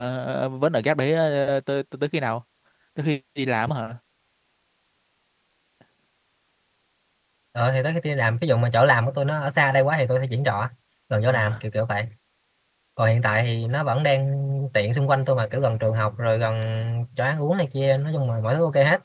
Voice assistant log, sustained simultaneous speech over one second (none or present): none